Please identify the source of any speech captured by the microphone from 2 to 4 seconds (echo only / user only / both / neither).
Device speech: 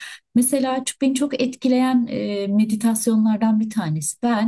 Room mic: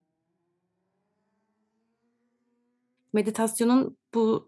user only